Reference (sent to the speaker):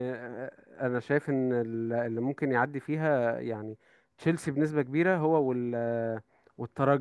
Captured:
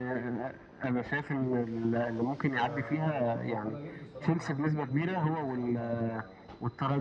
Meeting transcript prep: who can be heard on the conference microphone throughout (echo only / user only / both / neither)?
both